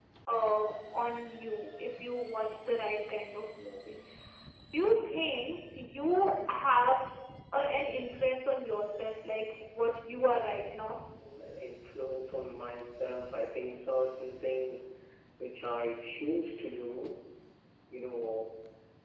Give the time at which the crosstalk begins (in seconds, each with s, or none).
none